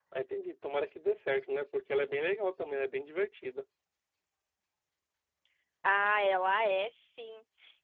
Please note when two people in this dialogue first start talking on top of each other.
none

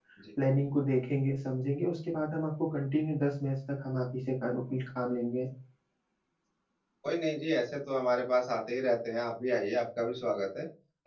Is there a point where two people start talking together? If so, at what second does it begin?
none

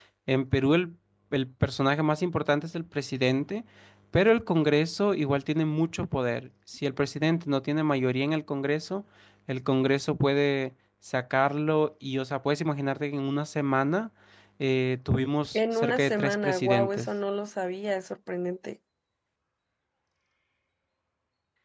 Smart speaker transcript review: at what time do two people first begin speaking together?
15.5 s

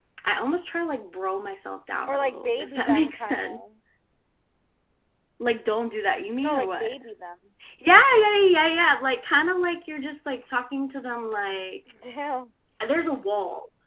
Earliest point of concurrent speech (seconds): 2.1 s

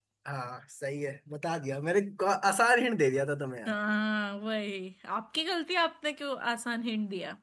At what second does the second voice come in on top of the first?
none

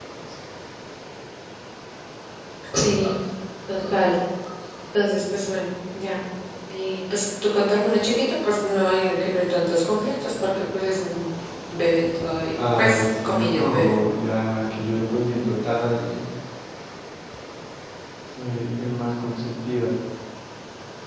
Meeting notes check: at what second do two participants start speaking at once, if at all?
12.6 s

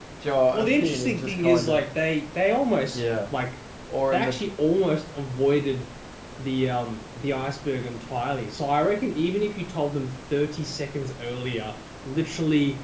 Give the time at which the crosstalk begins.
0.5 s

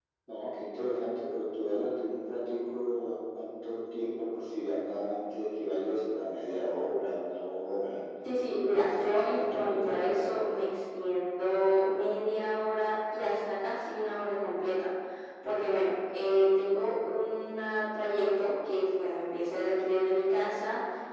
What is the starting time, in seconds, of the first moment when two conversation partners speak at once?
8.7 s

